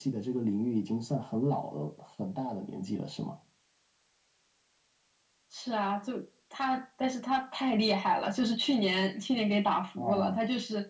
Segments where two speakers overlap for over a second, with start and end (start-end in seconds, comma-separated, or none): none